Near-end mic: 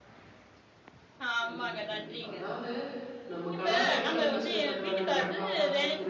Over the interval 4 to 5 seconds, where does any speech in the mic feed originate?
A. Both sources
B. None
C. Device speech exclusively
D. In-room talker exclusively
A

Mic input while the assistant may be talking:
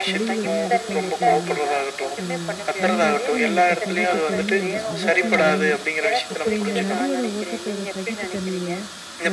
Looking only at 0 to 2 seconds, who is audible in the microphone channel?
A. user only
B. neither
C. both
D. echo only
C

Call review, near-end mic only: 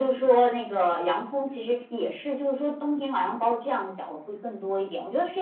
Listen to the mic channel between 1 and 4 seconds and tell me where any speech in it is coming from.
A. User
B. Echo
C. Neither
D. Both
B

